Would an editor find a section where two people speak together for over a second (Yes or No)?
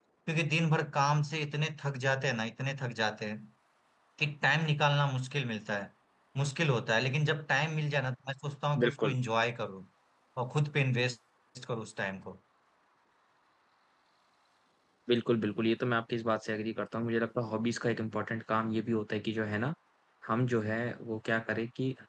No